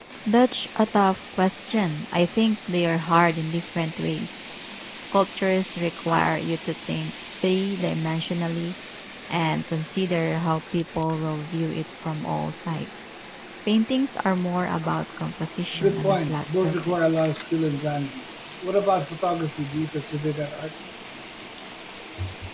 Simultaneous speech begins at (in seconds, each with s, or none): 15.7 s